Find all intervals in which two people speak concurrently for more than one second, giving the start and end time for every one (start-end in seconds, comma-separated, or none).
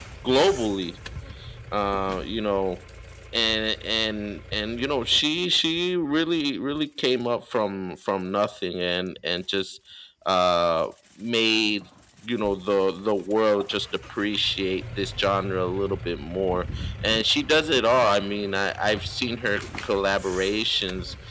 none